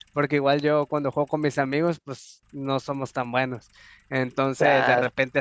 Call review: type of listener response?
listening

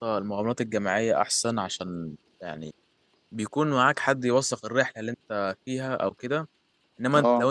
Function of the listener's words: listening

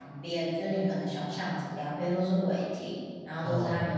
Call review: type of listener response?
listening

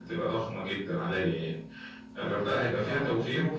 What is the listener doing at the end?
listening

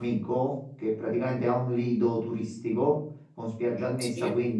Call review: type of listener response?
listening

